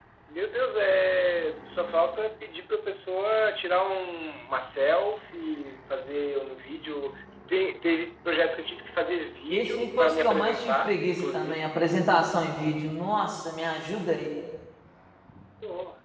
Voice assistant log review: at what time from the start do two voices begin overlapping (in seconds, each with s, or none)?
9.5 s